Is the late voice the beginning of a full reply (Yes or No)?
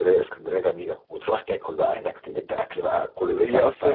Yes